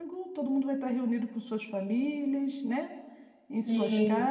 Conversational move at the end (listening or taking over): listening